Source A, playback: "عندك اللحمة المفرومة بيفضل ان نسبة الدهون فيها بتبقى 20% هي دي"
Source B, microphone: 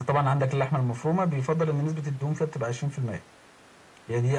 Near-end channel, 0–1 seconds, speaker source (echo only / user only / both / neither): echo only